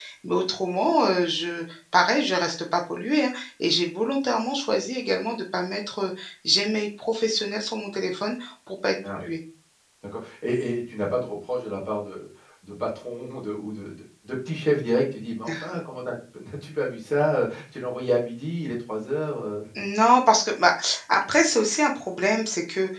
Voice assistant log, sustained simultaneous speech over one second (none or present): none